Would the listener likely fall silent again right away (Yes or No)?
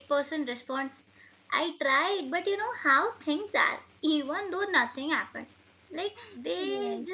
Yes